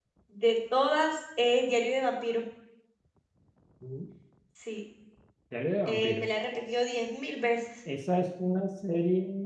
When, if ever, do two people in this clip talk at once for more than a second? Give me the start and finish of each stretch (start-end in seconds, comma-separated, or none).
none